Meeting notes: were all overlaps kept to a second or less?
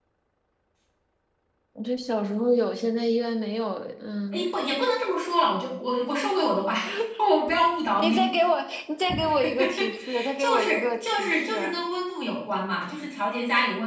No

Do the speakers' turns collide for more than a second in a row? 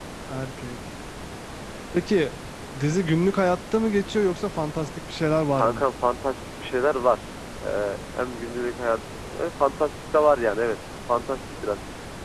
No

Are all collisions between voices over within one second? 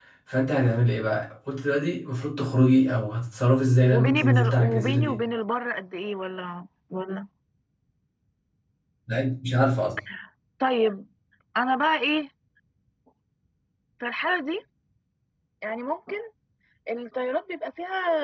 No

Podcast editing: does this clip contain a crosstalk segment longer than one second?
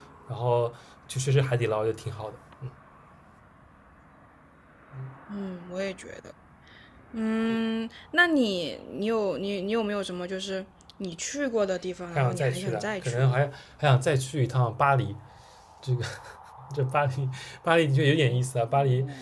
Yes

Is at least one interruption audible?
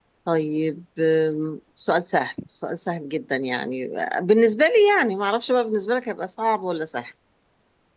No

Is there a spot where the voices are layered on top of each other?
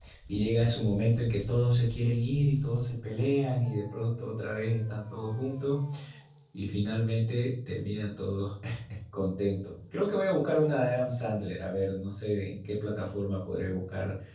No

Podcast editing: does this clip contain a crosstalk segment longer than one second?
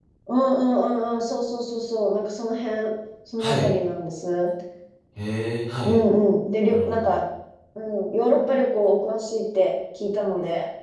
No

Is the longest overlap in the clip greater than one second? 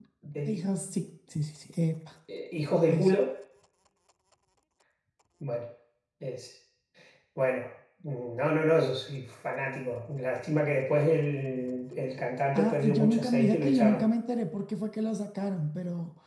Yes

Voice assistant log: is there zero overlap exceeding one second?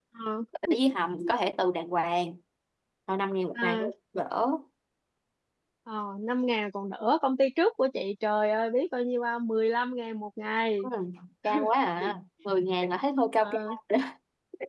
Yes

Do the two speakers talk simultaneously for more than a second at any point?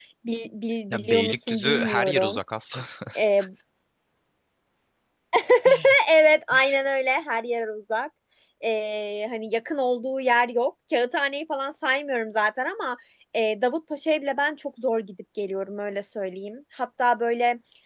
Yes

